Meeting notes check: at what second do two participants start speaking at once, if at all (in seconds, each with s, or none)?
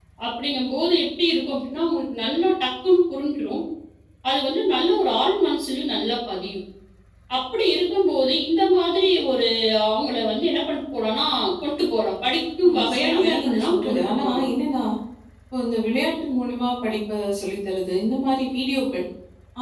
12.6 s